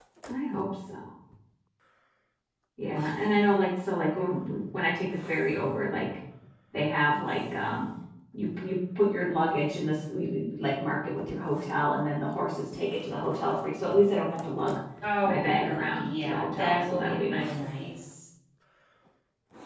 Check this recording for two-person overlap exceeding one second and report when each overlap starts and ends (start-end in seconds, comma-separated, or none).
15.2-17.5